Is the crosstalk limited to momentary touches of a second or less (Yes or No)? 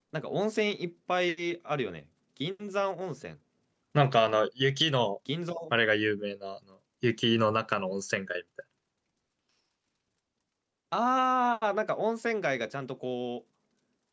Yes